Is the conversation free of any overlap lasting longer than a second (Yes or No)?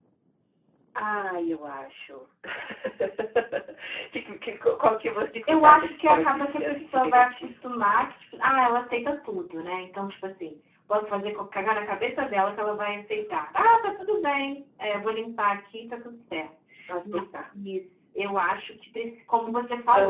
No